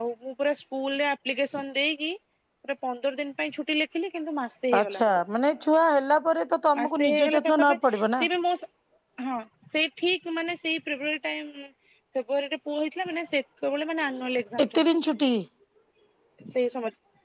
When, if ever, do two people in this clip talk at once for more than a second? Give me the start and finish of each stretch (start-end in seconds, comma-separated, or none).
6.8-8.0